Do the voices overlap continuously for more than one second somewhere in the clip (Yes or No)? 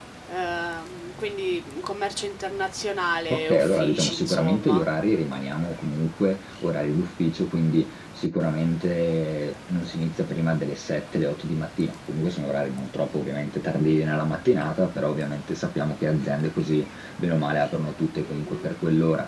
Yes